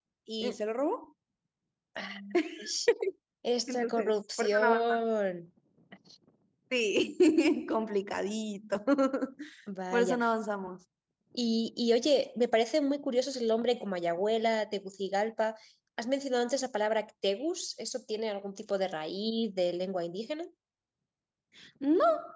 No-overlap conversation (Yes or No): No